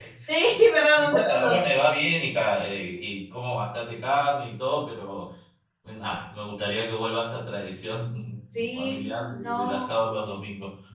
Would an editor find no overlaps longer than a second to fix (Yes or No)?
No